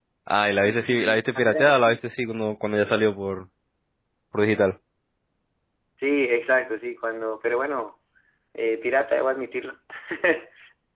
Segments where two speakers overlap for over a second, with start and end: 0.6-2.0

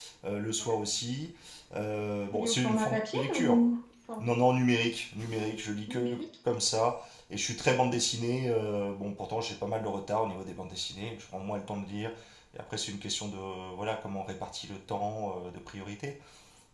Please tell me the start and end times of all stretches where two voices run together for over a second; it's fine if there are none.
2.3-3.6

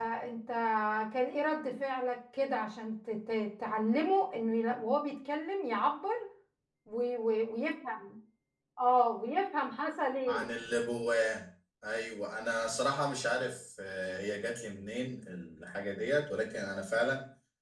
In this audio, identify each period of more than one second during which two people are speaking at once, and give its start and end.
none

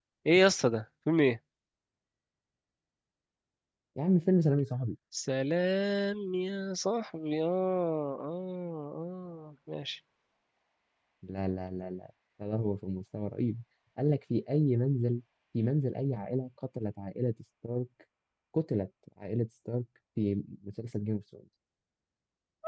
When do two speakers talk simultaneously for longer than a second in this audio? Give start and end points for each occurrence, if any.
none

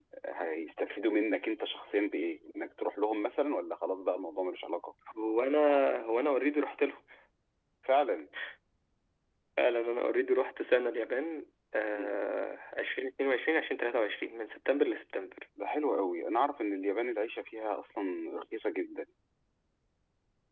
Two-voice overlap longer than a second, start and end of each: none

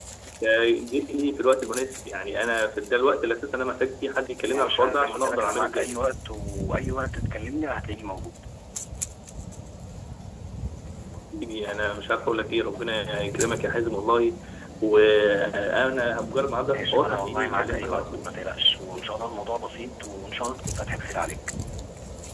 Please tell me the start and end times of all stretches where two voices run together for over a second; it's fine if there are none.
4.5-5.9, 16.7-18.3

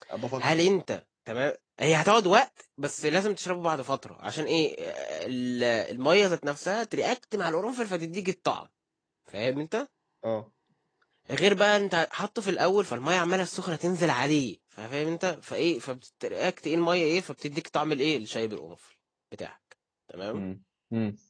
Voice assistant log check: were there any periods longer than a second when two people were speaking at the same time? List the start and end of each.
none

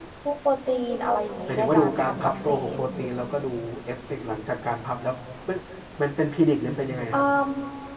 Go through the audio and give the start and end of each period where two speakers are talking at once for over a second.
1.5-2.8

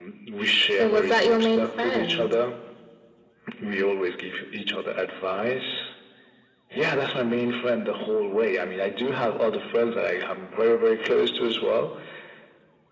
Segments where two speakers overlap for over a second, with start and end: 0.8-2.3

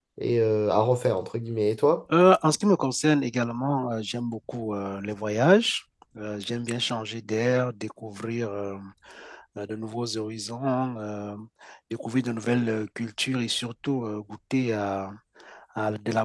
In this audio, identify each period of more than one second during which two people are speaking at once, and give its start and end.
none

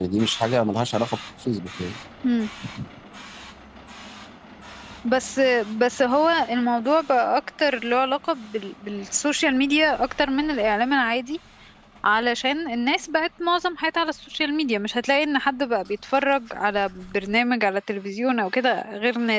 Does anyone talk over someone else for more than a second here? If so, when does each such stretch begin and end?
none

